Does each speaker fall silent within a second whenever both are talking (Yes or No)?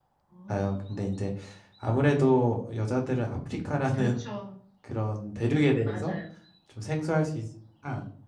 Yes